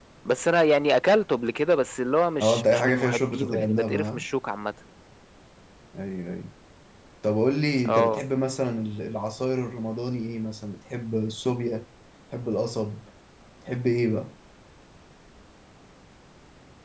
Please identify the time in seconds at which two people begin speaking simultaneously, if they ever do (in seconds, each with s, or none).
2.4 s